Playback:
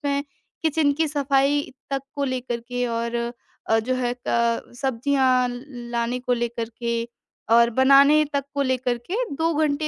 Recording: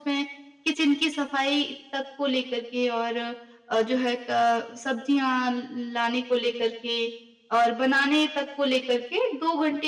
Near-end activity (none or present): none